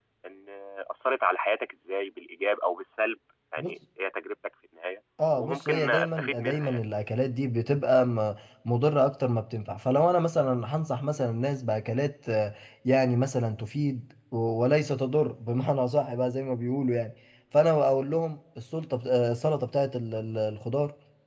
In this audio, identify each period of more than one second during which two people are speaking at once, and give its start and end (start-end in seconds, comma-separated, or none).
5.3-6.8